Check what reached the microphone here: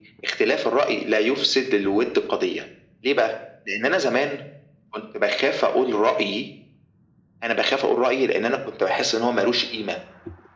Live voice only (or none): none